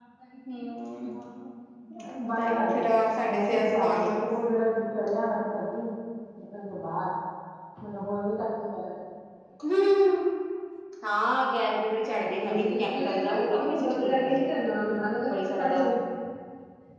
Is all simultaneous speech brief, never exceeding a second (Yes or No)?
No